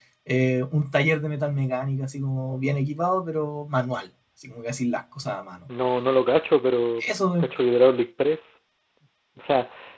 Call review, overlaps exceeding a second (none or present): none